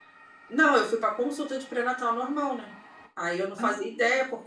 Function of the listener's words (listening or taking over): listening